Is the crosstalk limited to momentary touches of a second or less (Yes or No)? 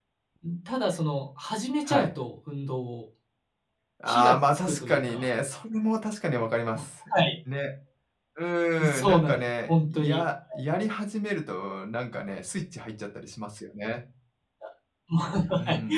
No